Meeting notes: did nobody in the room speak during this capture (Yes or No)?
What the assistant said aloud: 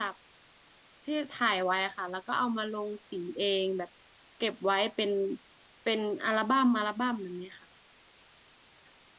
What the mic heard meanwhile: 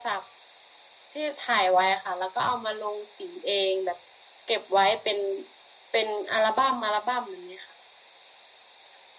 Yes